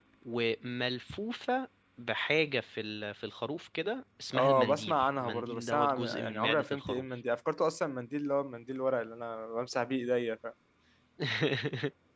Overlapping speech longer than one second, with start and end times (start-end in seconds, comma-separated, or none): 4.3-7.0